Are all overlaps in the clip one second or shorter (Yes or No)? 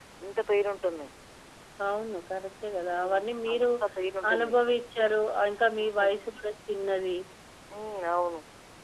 Yes